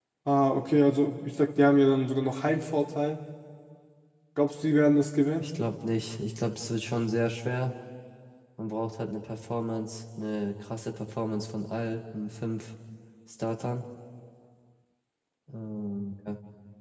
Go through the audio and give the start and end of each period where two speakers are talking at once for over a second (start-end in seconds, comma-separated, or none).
none